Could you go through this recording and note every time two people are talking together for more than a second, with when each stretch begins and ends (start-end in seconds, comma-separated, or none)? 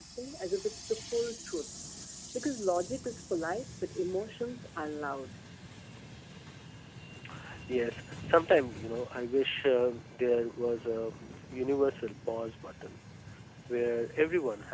none